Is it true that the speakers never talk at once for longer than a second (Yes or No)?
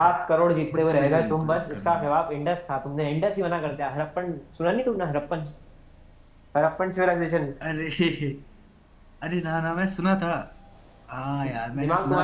No